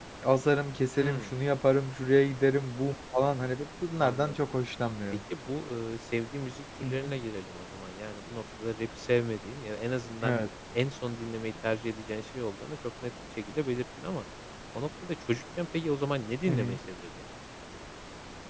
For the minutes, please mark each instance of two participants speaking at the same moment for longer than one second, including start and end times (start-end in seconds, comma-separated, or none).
none